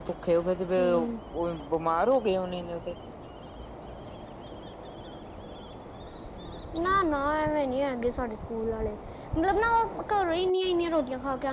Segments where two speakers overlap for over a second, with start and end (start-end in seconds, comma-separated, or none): none